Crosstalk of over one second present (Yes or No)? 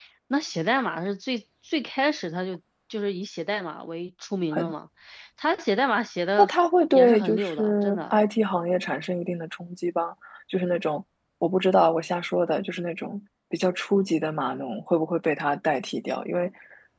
Yes